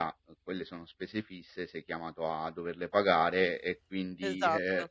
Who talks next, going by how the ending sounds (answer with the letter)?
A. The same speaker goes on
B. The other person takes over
A